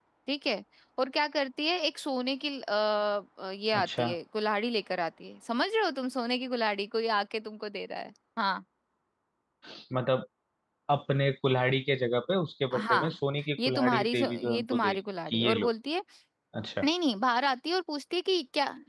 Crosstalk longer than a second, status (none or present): present